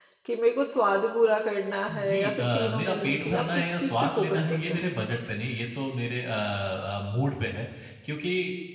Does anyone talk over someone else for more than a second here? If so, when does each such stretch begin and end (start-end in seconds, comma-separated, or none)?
2.1-4.9